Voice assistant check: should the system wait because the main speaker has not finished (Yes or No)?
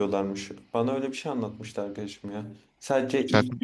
No